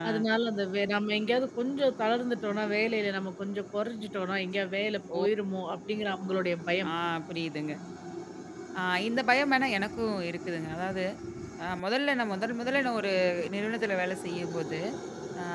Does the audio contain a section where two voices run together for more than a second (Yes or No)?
No